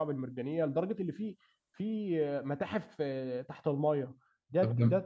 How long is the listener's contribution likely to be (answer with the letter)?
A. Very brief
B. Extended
A